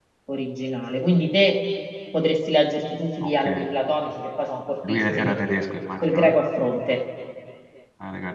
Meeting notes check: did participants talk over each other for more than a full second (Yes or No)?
No